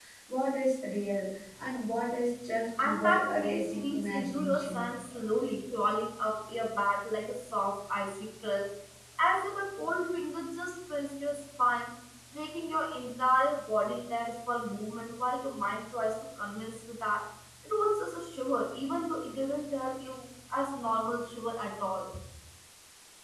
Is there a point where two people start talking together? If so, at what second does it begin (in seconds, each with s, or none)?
2.8 s